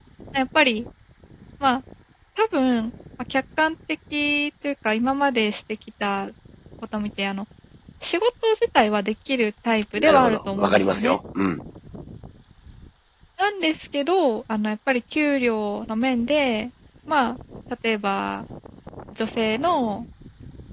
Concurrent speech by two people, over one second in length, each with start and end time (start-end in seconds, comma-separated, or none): 10.0-11.2